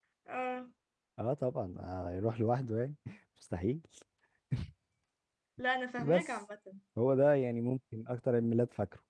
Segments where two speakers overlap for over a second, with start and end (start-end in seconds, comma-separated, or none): none